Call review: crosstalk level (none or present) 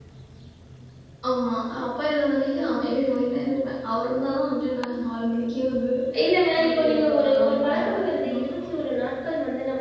present